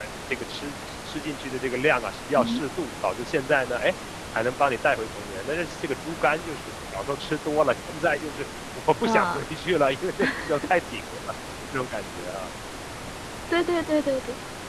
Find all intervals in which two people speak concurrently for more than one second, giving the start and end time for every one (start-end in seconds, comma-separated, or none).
none